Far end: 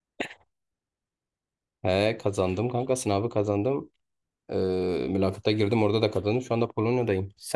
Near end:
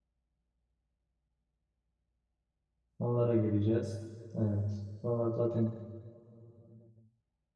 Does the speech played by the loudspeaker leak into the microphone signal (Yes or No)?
No